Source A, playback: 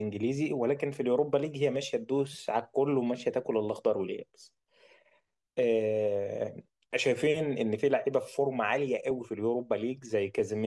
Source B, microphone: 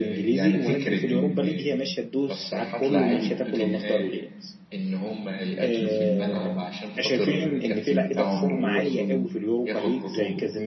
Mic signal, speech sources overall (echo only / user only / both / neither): both